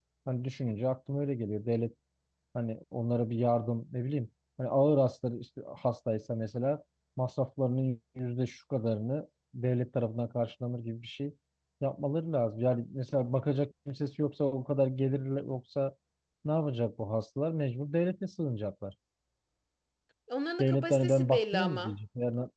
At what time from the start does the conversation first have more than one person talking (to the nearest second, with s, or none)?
21 s